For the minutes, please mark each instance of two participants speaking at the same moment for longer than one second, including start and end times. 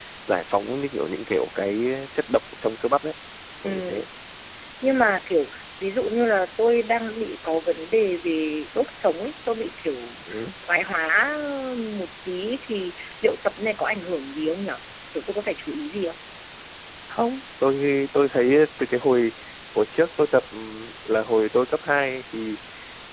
none

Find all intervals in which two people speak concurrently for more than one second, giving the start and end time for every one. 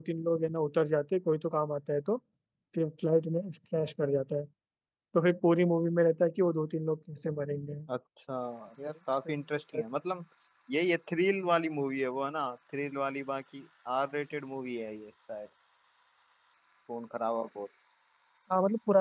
none

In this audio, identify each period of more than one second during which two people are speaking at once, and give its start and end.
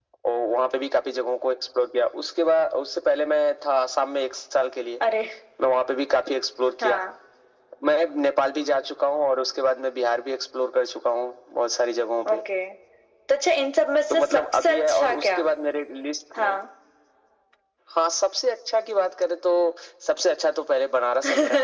14.1-15.4

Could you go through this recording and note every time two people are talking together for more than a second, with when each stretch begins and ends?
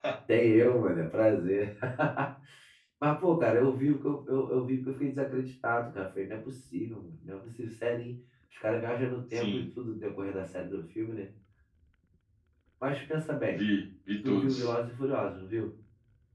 none

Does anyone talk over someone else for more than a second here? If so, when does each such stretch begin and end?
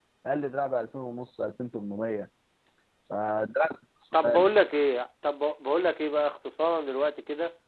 none

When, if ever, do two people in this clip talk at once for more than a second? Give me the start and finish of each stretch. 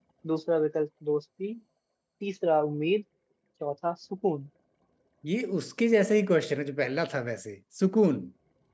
none

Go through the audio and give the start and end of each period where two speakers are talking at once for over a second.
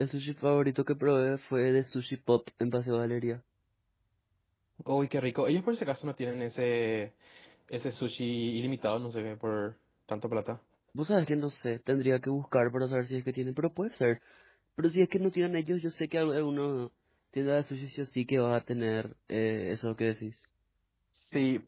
none

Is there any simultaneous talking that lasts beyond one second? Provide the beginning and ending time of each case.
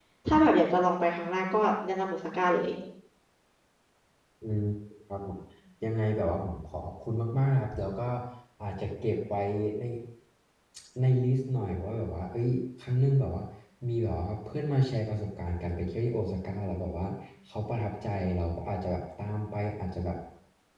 none

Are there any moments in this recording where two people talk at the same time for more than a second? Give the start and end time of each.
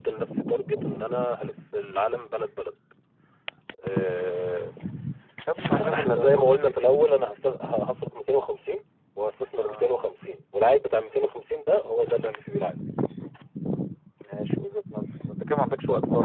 5.7-7.2

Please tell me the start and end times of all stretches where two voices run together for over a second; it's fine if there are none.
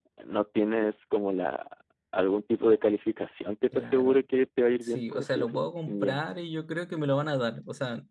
4.8-6.2

